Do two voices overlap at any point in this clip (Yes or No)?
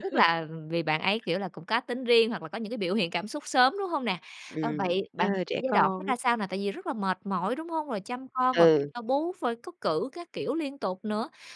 Yes